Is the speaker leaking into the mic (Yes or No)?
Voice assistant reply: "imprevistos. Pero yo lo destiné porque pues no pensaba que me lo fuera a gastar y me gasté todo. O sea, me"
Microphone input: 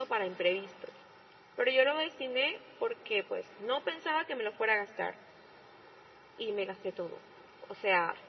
Yes